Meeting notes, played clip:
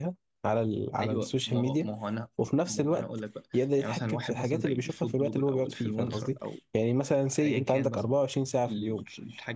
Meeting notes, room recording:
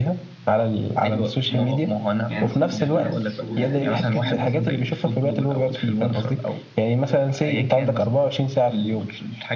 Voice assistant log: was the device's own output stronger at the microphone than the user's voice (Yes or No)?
Yes